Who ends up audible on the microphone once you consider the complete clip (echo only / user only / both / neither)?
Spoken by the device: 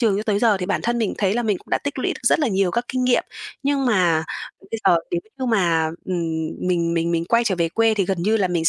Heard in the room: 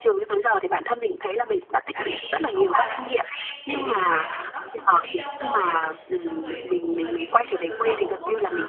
both